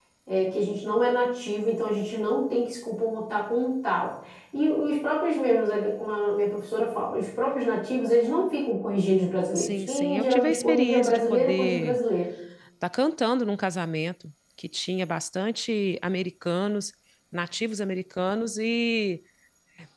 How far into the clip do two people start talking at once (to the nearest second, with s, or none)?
10 s